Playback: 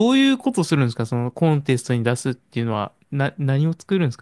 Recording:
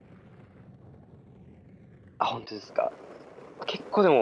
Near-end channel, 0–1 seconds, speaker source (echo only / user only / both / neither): neither